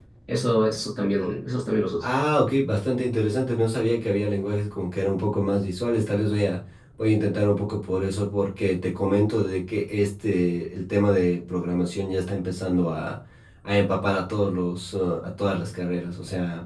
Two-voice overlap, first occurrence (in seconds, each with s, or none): none